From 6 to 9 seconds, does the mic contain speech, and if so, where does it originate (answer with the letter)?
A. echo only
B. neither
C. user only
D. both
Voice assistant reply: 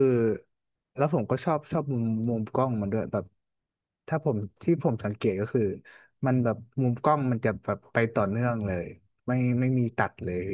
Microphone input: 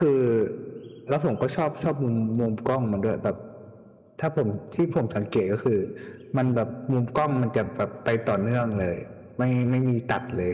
A